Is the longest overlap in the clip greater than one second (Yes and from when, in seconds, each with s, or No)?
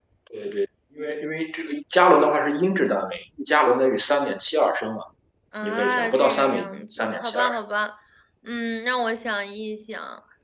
Yes, from 5.6 s